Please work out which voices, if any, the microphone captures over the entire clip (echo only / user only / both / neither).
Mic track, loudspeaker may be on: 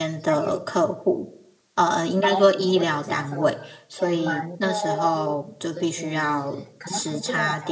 both